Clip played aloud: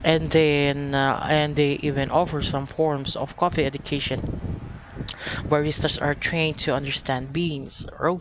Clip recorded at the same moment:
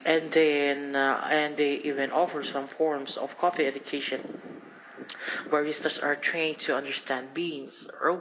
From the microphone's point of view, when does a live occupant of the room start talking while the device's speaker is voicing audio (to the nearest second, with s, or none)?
none